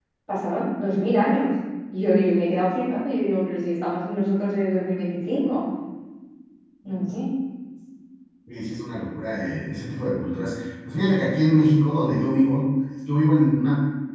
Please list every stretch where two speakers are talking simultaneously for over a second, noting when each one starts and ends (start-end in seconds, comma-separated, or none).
none